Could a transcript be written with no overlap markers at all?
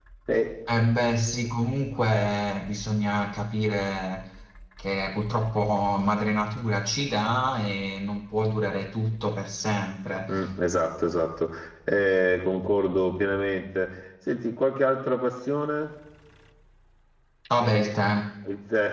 Yes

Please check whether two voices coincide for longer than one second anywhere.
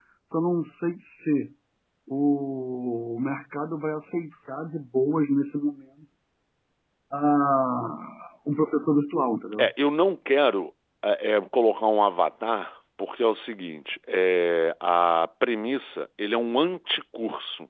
No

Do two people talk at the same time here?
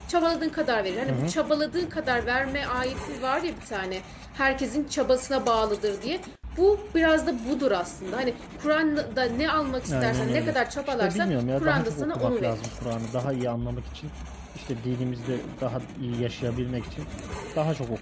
Yes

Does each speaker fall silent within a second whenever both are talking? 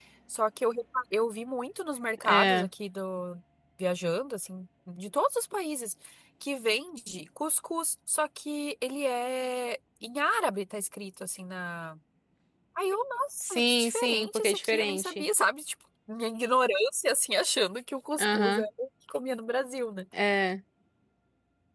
No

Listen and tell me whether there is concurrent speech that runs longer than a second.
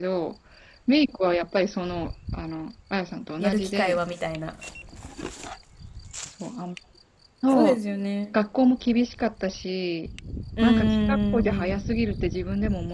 Yes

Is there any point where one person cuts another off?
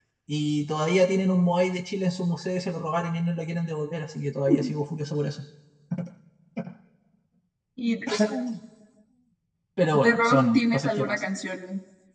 Yes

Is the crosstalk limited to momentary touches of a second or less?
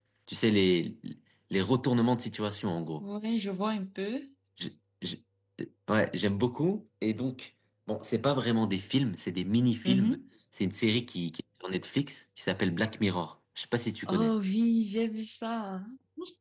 Yes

